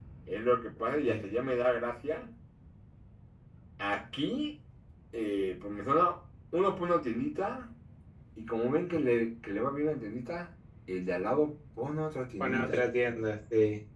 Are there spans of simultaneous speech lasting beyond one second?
No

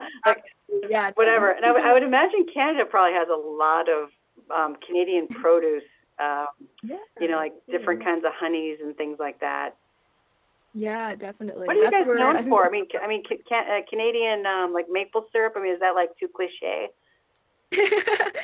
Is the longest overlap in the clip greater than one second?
Yes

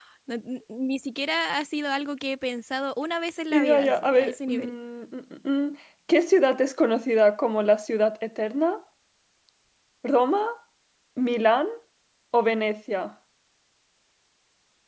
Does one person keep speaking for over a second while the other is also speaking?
Yes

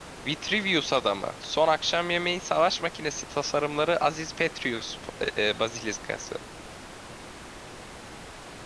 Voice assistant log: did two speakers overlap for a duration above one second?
No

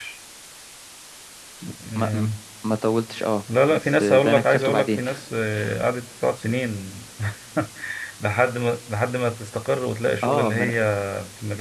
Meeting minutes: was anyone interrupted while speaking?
Yes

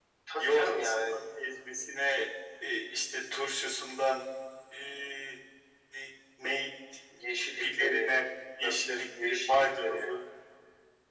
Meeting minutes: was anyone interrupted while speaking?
Yes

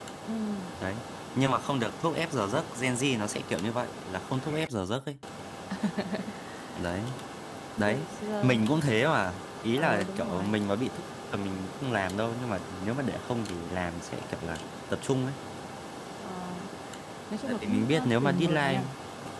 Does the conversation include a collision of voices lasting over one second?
Yes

